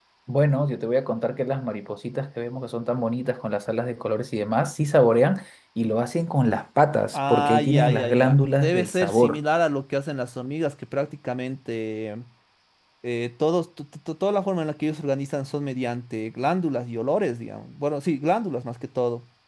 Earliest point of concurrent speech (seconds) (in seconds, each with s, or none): 7.1 s